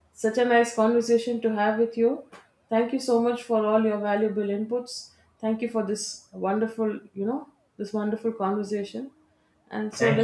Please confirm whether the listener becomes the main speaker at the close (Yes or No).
Yes